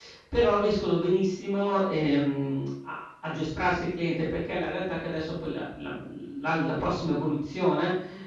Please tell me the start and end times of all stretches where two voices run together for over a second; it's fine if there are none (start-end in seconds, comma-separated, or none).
none